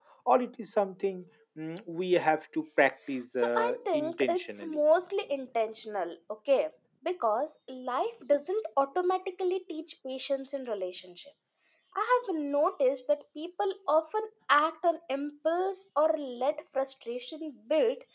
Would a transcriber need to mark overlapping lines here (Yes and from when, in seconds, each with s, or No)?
Yes, from 3.3 s